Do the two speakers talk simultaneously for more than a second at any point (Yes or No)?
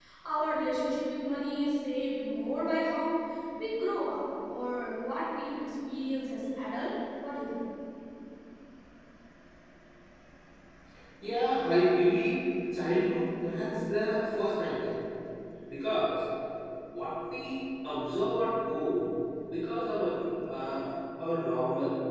No